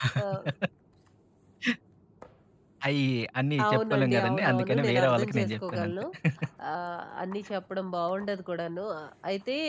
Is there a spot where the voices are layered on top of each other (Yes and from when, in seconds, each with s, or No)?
Yes, from 3.6 s